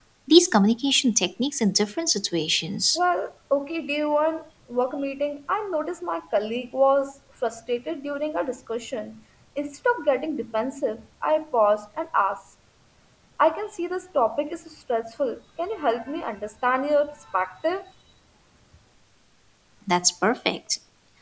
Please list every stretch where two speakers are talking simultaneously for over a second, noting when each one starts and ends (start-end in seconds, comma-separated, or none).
none